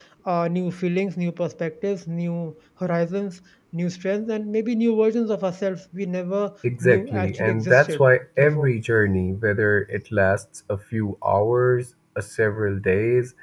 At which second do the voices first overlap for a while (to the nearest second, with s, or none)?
7 s